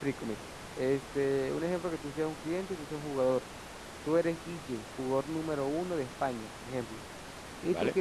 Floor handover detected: No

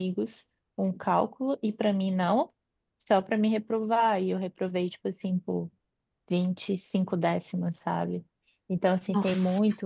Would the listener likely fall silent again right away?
Yes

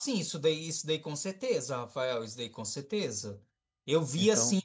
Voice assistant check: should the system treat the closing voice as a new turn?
No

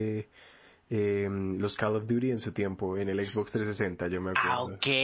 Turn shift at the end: Yes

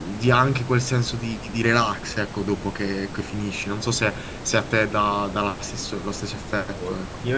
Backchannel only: No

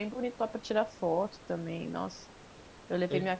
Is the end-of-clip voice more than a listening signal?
No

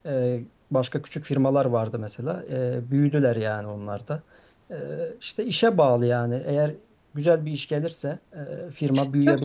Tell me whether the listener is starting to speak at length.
Yes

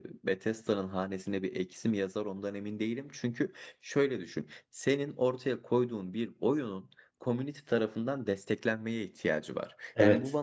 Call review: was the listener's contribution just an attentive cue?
Yes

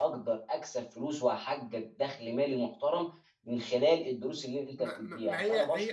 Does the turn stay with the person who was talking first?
No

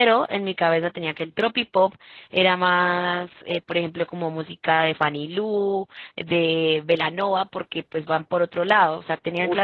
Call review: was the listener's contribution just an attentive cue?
Yes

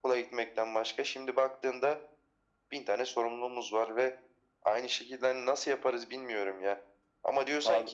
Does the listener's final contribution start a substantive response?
No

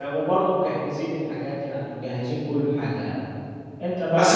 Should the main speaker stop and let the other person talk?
Yes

